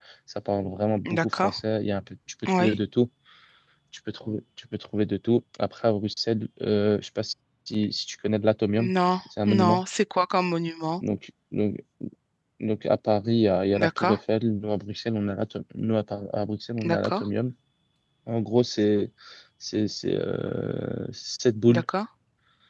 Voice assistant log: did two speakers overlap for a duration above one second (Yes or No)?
No